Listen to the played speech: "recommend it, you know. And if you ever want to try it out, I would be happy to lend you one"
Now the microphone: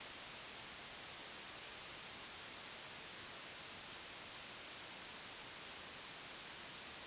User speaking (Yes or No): No